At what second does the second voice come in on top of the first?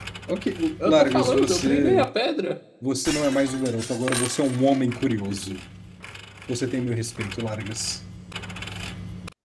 0.9 s

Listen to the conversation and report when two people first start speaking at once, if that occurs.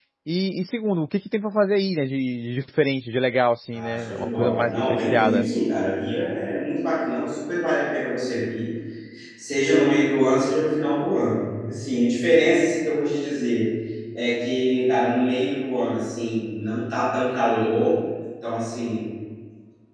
3.7 s

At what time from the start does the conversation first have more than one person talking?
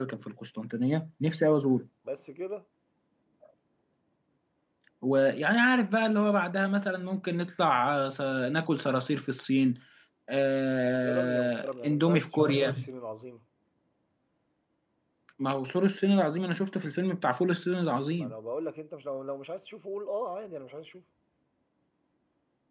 11.0 s

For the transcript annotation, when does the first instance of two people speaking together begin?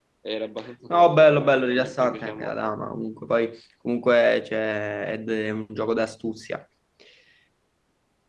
0.9 s

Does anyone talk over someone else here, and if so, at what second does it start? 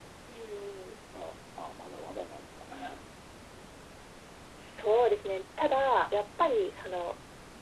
none

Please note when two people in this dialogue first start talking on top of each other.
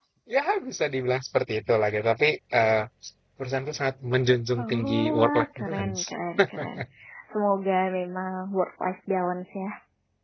4.6 s

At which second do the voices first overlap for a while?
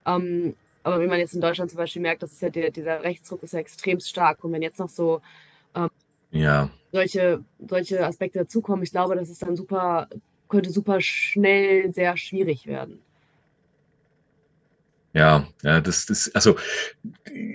none

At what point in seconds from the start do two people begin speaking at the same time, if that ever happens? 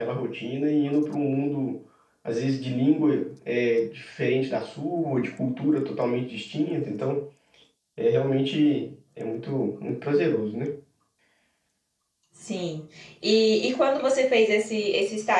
none

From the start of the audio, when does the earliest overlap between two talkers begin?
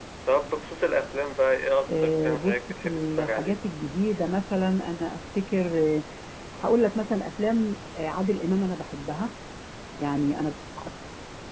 1.9 s

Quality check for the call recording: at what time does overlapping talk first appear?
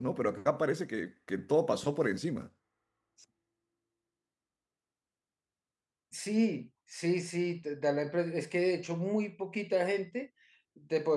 none

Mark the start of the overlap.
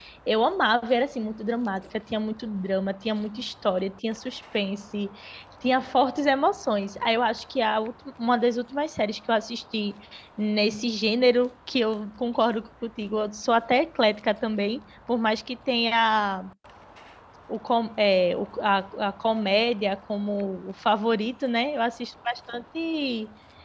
none

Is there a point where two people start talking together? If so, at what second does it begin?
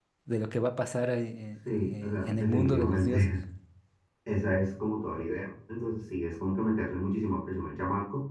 1.6 s

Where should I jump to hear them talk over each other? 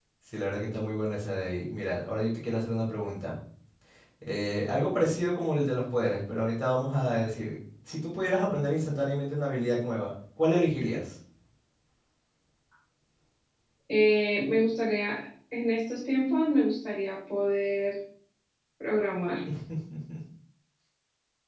none

